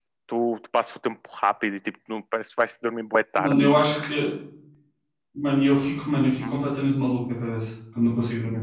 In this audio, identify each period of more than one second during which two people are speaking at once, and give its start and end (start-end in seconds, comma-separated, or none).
none